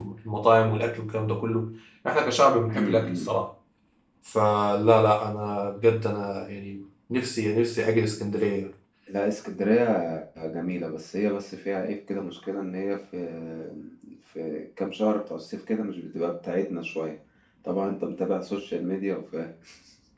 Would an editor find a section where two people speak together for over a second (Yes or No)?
No